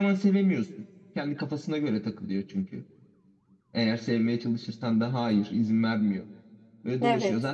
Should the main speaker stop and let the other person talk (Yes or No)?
No